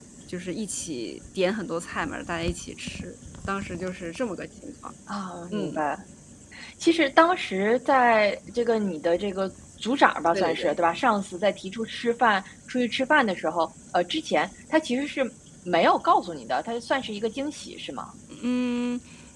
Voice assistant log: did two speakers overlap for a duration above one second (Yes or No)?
No